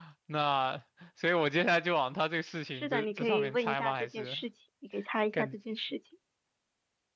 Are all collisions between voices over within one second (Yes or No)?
No